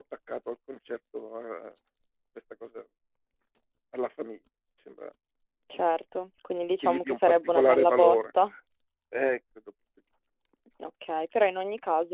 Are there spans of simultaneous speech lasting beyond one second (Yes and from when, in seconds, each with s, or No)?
Yes, from 6.8 s